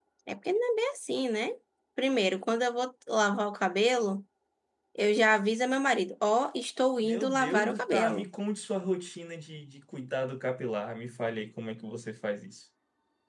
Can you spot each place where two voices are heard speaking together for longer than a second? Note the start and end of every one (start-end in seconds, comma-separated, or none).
7.0-8.3